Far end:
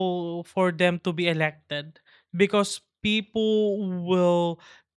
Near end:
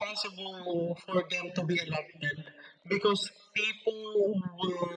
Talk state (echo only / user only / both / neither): echo only